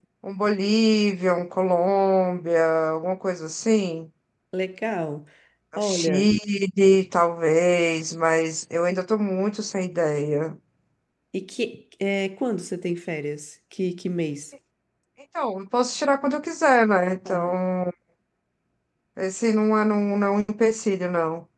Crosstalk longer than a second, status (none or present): none